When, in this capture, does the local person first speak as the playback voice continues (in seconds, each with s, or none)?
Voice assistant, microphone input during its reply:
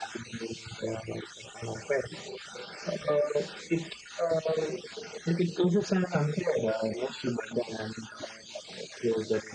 none